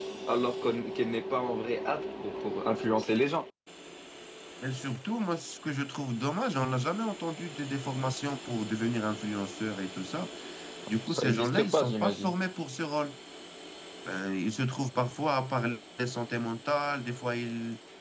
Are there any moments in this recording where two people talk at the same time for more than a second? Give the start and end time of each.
11.1-12.3

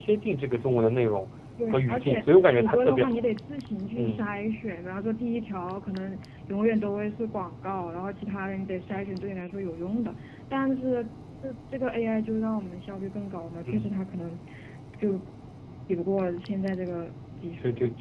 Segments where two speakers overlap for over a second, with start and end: 1.7-3.2

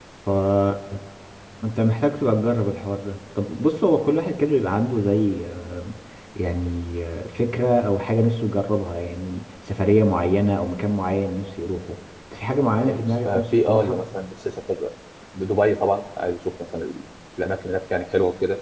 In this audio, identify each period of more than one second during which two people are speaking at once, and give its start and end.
12.8-14.0

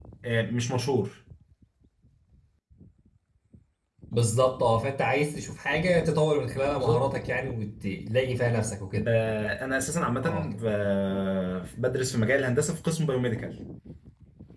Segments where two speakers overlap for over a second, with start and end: none

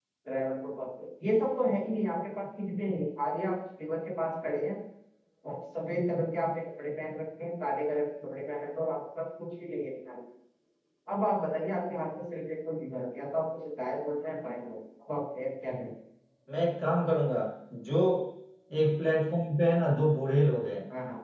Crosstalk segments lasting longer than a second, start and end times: none

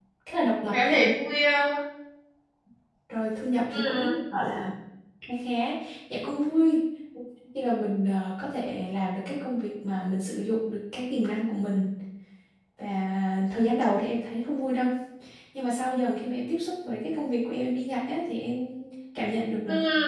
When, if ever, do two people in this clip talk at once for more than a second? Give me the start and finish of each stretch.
none

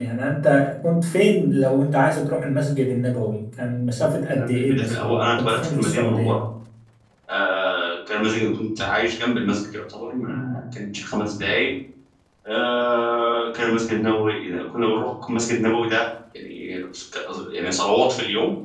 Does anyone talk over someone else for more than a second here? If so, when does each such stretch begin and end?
4.3-6.3

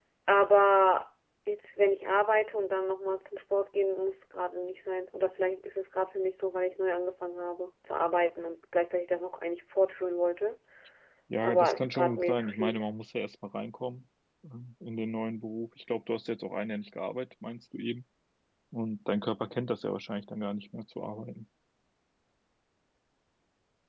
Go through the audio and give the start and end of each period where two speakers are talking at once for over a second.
11.4-12.8

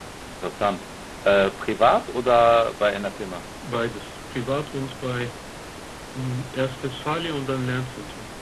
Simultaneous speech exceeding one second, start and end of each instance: none

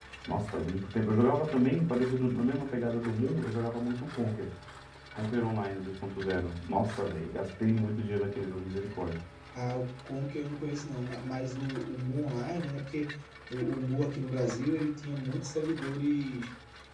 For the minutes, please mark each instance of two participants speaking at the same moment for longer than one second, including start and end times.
none

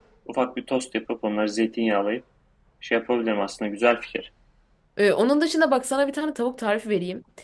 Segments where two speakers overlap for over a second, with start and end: none

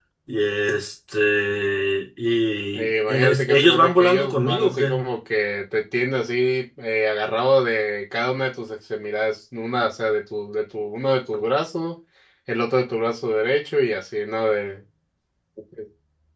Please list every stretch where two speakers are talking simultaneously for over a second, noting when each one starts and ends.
2.8-4.9

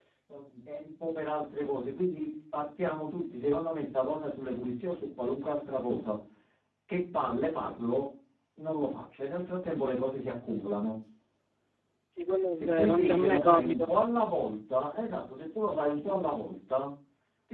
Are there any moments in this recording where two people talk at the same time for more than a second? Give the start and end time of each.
12.6-13.8

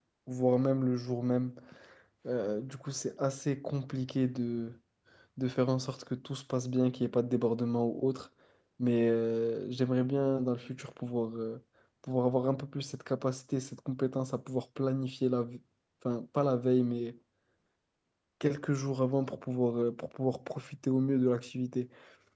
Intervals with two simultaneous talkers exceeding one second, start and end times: none

